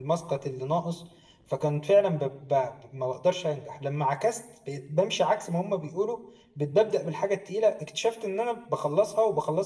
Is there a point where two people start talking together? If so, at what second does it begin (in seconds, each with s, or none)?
none